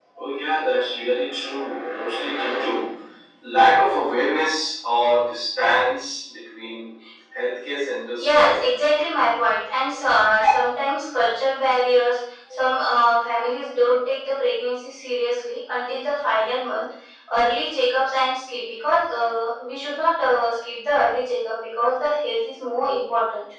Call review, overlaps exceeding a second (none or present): none